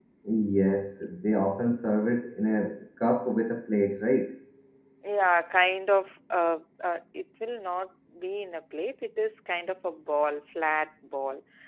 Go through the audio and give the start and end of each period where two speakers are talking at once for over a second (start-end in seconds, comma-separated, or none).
none